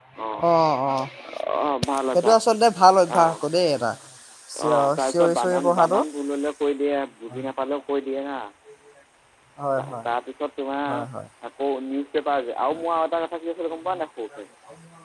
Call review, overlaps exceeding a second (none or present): present